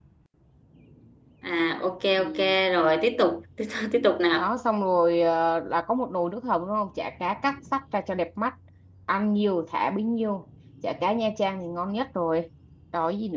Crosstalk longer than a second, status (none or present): none